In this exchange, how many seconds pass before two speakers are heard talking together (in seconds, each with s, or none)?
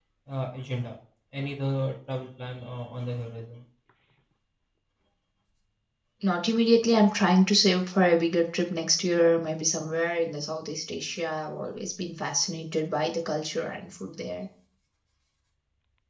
none